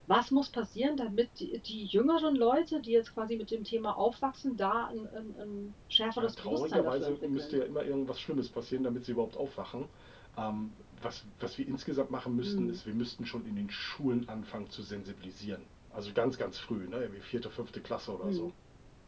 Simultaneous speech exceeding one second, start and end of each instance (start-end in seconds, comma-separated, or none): 6.2-7.5